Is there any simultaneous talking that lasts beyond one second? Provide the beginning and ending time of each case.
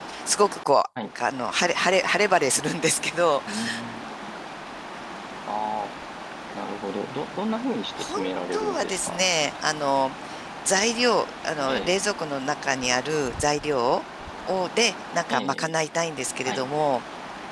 8.0-9.2

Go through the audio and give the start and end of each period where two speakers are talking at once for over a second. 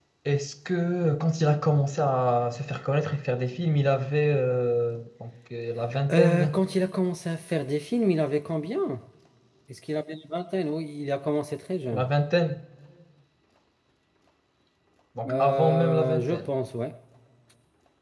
15.3-16.5

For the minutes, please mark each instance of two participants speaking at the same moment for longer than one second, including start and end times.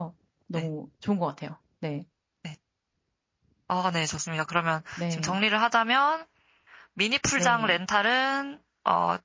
none

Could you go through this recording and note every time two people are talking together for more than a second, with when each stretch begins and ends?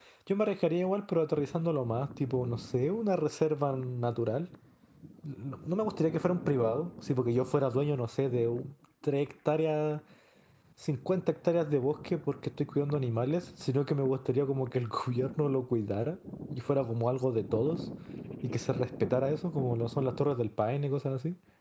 none

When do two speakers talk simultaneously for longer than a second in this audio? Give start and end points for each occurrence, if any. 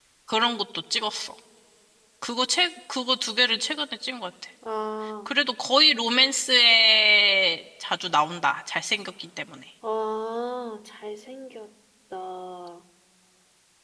none

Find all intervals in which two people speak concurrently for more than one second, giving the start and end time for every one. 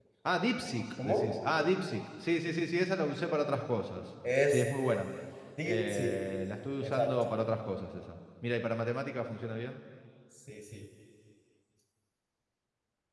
none

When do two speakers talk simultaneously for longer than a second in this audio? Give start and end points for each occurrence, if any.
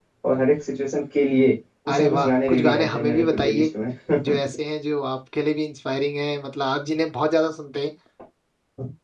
1.9-3.7

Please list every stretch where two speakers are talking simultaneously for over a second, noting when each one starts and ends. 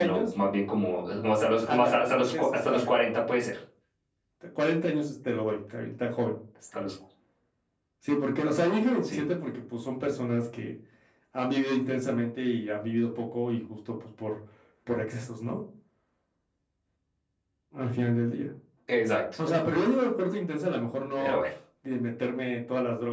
1.7-2.9

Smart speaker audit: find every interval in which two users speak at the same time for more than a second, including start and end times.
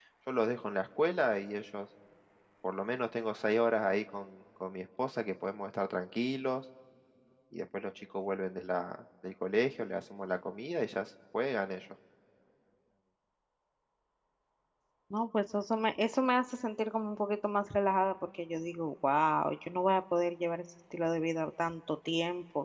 none

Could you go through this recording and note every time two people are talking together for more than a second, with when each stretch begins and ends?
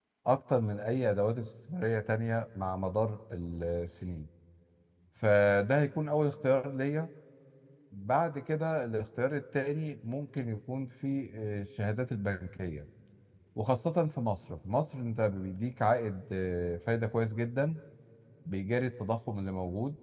none

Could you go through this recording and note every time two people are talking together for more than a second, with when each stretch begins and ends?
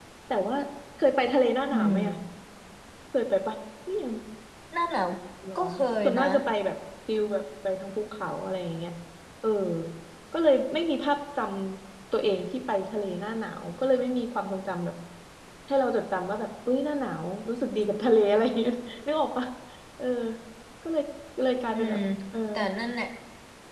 none

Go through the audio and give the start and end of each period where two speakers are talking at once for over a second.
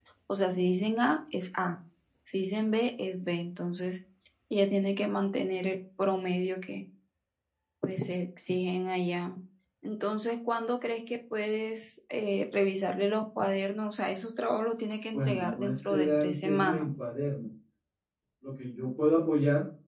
15.1-16.9

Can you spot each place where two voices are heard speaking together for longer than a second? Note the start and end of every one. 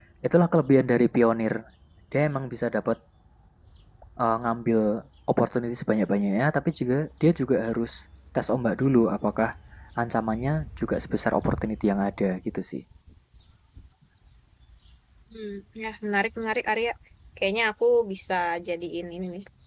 none

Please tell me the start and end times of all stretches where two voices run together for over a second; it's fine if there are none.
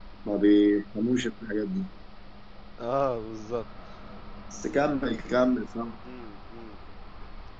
none

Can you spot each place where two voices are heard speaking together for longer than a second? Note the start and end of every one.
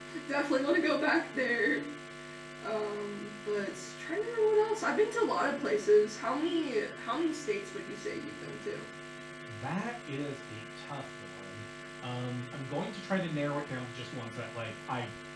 none

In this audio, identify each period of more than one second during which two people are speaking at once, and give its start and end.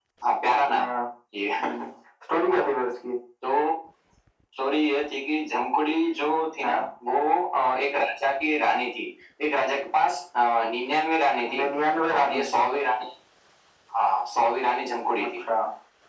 none

